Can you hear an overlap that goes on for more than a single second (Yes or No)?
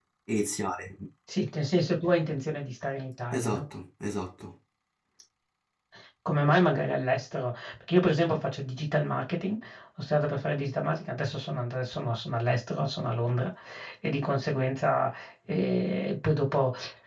No